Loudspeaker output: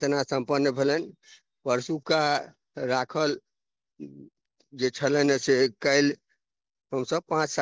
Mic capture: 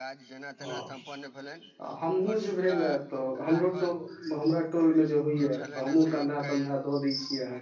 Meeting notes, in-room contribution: present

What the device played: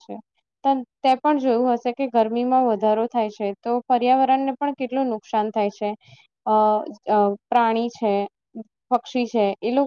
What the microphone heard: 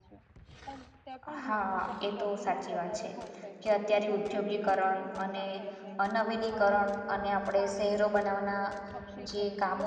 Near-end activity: present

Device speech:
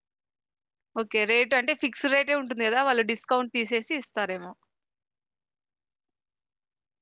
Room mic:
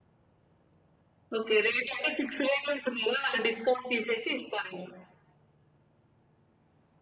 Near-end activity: none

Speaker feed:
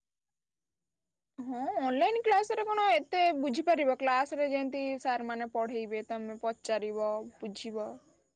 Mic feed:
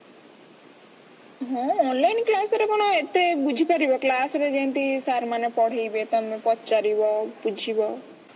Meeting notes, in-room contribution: none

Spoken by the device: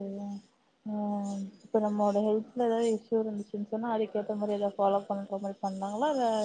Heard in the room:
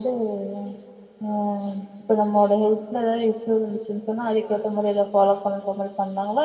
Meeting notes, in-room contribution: none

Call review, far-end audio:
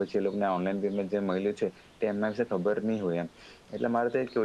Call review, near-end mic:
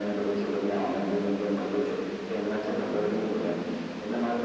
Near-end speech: none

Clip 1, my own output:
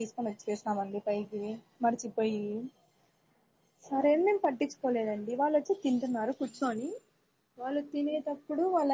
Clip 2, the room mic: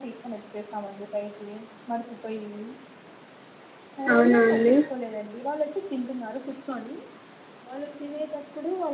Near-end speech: present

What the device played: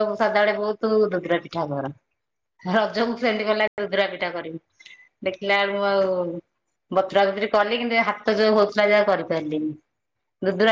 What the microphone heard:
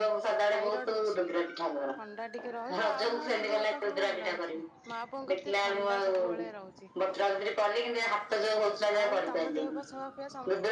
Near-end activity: present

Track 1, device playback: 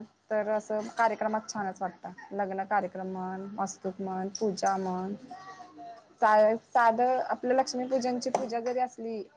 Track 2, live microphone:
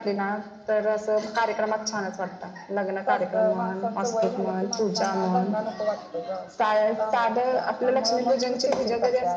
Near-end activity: present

